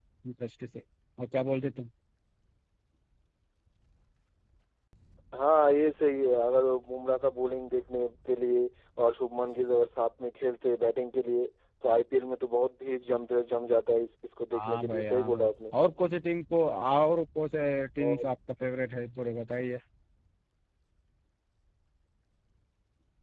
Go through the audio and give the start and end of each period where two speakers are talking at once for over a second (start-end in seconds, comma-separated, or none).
14.5-15.7